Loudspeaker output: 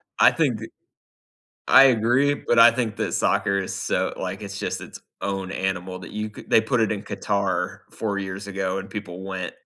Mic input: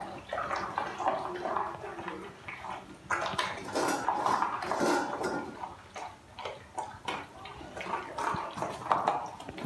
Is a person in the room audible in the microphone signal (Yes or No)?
No